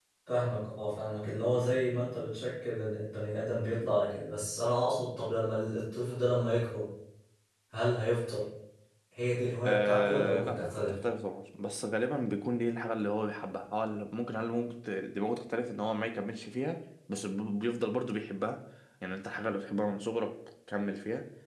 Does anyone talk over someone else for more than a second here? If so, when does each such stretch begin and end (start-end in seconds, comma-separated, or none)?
9.7-11.0